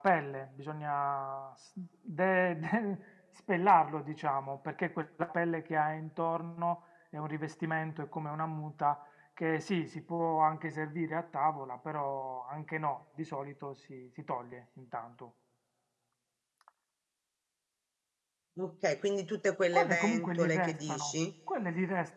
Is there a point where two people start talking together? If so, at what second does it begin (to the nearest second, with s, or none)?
20 s